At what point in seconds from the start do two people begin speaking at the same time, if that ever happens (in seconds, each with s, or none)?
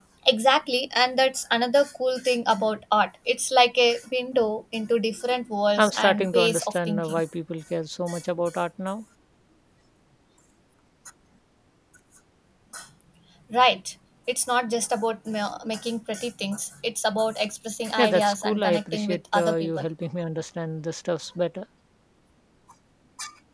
5.8 s